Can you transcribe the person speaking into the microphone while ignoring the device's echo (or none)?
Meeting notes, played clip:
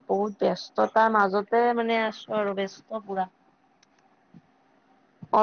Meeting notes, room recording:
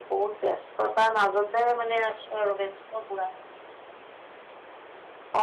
none